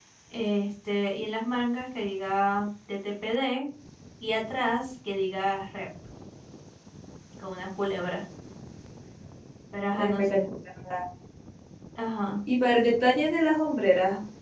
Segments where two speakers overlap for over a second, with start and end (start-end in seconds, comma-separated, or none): none